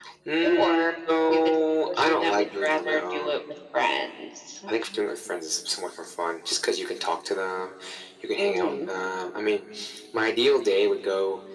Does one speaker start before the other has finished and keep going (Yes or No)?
Yes